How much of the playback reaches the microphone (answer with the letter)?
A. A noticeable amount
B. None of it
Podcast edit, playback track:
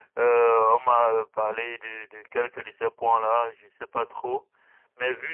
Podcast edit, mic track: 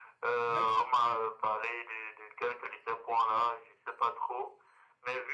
A